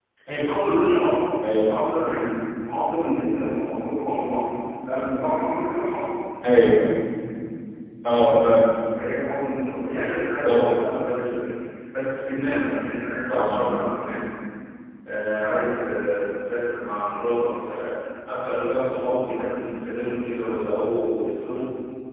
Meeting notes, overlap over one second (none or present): none